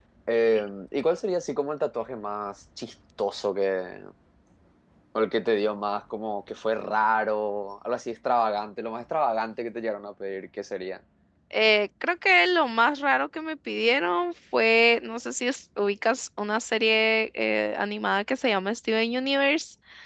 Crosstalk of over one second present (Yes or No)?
No